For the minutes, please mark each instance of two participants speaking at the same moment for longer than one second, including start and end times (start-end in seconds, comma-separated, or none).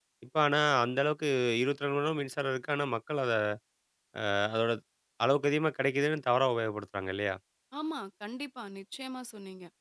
none